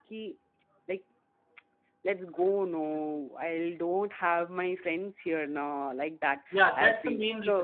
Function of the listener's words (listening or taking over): taking over